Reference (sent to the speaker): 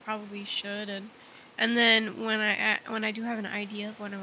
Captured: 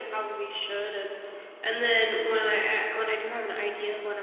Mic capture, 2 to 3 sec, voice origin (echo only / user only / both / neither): echo only